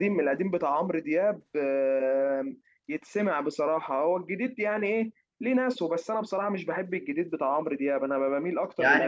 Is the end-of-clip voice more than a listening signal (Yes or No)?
Yes